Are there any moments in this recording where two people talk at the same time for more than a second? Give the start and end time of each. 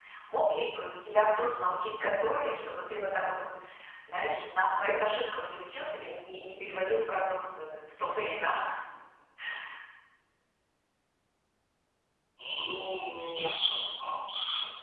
none

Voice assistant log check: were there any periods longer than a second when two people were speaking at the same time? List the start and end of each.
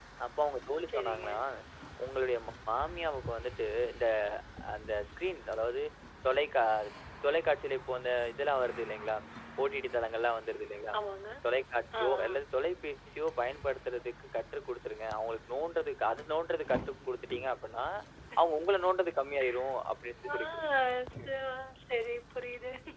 none

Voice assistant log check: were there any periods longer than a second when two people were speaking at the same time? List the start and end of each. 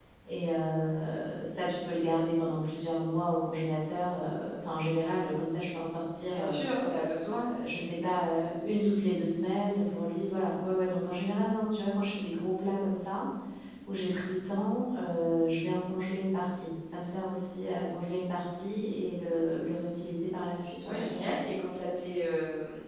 none

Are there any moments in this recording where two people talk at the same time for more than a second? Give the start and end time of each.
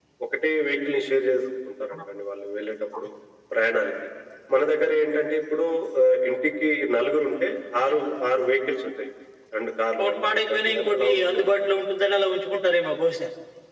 10.0-11.5

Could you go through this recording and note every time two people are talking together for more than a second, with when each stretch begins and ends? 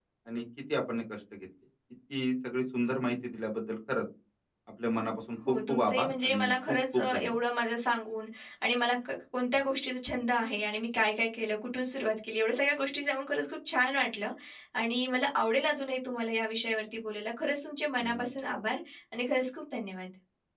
5.7-7.4

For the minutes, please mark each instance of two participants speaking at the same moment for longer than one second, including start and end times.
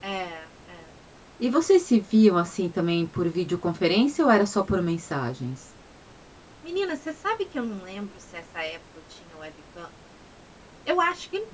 none

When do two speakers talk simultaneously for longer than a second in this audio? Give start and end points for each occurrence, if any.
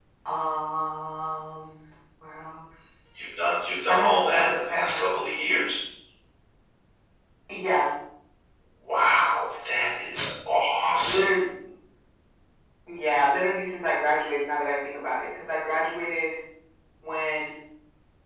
3.9-5.1

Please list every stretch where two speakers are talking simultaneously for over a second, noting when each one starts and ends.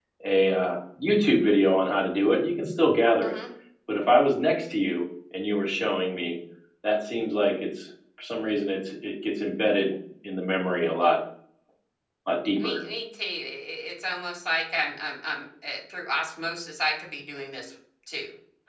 none

